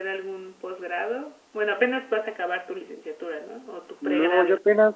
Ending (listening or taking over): taking over